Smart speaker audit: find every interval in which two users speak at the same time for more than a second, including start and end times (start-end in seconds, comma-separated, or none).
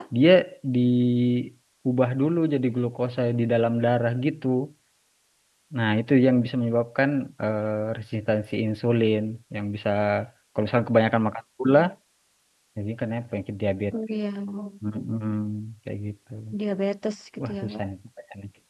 none